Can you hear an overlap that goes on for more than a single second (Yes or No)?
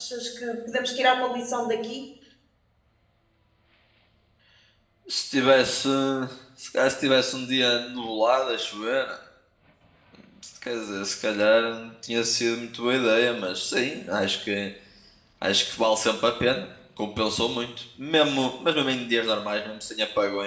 No